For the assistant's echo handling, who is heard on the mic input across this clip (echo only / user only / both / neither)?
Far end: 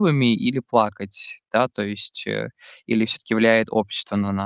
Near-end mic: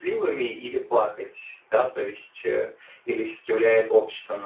echo only